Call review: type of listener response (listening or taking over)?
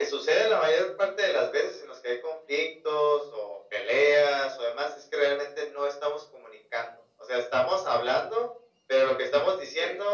listening